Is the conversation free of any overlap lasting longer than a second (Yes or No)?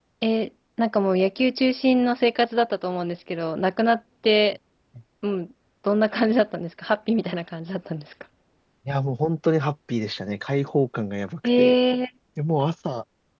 Yes